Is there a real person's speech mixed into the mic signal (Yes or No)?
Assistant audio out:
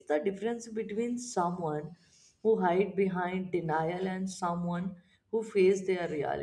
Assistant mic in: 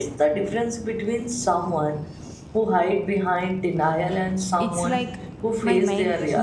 Yes